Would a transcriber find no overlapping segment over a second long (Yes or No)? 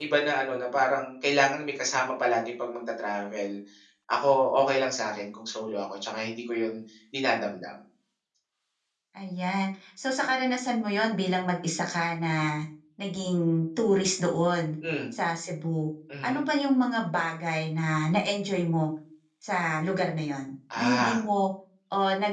Yes